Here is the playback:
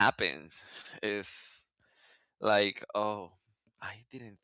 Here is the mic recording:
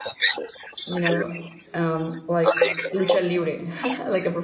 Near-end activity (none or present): present